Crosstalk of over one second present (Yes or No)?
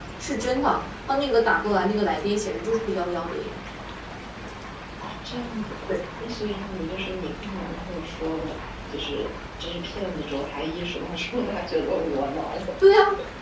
No